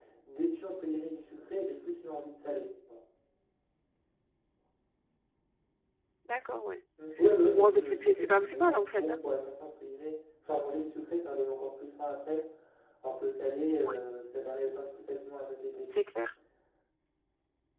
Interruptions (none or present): present